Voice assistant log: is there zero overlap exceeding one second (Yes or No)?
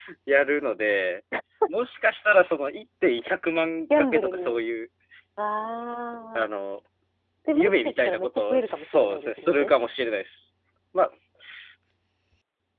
No